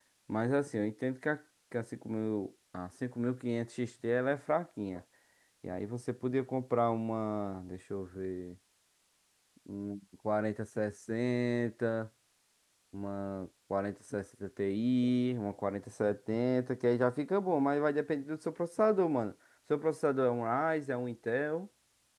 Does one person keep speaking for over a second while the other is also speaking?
No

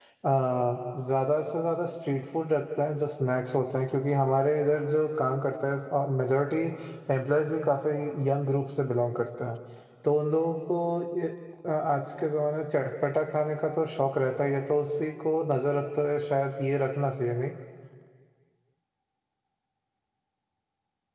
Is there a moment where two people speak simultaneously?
No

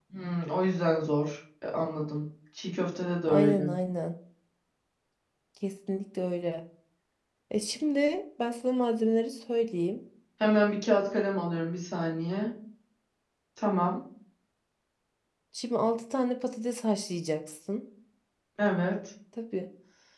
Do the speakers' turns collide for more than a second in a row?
No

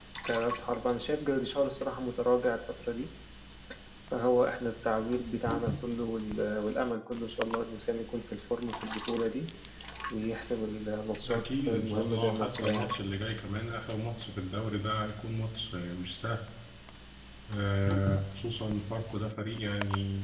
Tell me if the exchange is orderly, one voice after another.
No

